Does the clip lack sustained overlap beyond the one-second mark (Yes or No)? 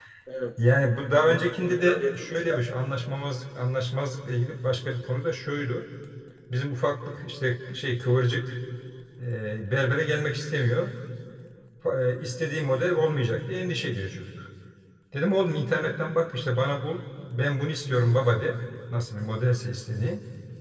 No